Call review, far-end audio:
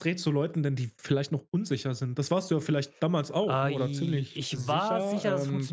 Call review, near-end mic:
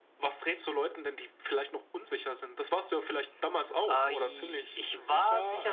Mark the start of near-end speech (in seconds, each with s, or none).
none